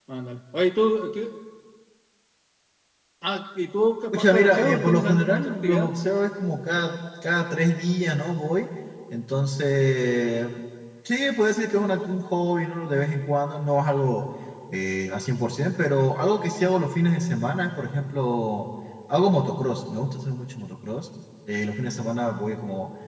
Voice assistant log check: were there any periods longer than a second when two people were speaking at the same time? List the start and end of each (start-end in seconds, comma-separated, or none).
4.1-5.9